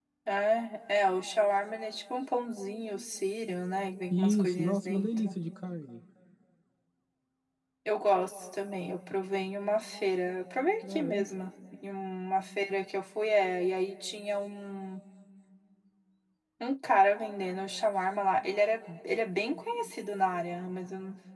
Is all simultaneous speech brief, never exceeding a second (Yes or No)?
No